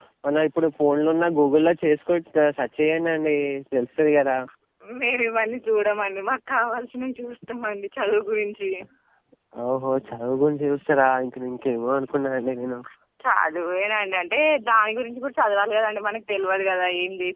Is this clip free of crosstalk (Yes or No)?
Yes